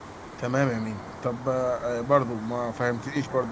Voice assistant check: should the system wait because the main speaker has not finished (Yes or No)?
Yes